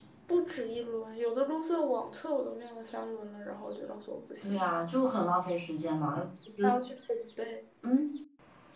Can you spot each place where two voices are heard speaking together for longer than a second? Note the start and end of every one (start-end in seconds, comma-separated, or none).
none